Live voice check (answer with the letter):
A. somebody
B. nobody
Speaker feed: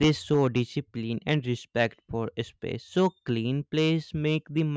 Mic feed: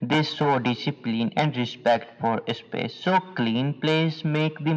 B